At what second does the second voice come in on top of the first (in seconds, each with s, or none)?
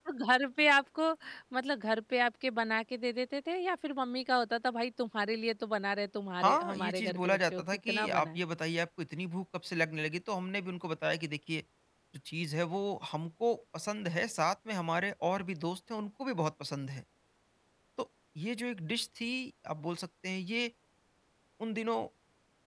6.4 s